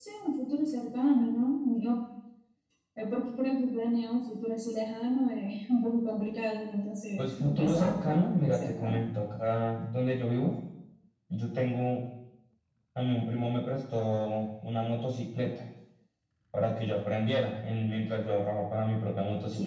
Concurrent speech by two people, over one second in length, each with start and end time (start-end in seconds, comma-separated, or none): 7.2-9.0